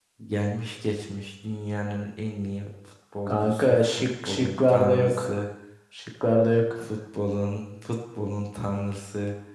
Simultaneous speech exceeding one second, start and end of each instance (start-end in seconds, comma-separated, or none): 3.3-5.3